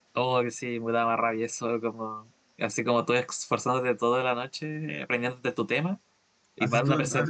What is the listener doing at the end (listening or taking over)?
taking over